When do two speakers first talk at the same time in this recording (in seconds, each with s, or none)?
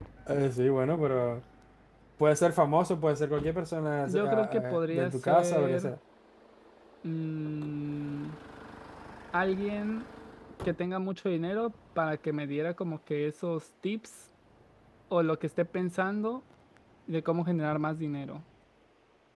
4.1 s